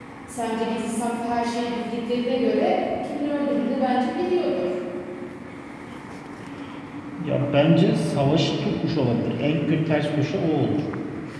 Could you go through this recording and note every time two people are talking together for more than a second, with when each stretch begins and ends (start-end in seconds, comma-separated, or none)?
none